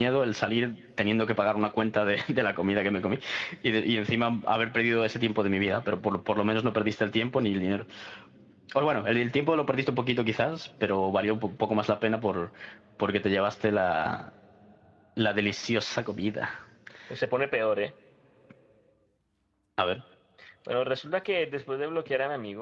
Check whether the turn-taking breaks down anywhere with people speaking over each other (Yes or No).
No